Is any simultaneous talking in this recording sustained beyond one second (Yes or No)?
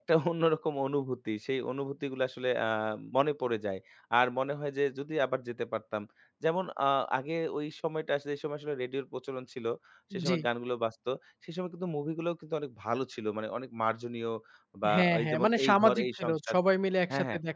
Yes